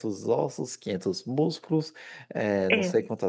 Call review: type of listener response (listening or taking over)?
listening